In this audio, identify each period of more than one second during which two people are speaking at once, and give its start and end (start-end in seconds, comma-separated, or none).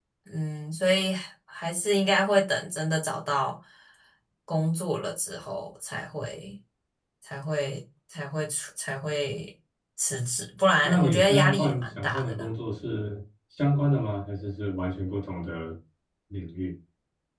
10.8-12.5